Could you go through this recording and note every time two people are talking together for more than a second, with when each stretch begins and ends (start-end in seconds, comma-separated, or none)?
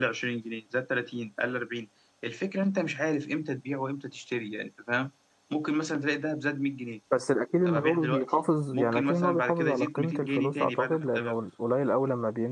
7.6-11.2